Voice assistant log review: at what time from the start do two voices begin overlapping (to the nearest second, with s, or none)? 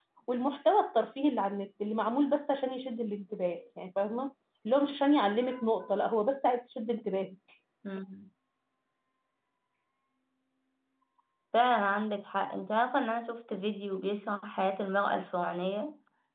none